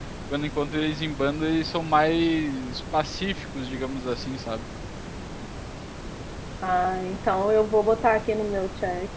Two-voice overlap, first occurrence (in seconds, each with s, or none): none